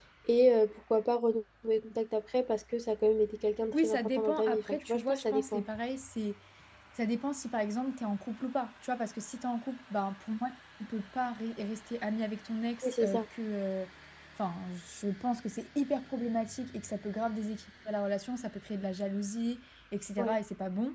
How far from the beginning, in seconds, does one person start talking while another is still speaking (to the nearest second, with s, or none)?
4 s